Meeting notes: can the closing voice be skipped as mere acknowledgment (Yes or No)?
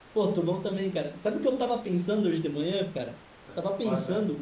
Yes